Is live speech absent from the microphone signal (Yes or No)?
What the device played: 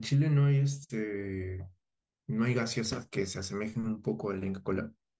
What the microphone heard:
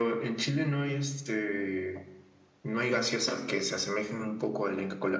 Yes